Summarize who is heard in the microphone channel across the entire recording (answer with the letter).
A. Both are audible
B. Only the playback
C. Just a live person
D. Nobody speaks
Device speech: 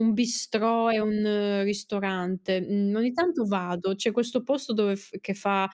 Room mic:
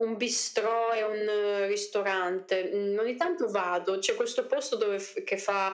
B